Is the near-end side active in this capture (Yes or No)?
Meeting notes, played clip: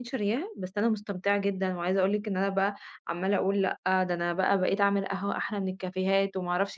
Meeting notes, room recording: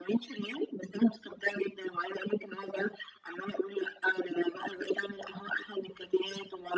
No